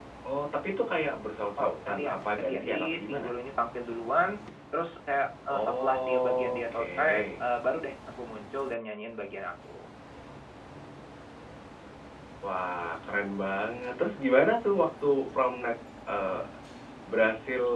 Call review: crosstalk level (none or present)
present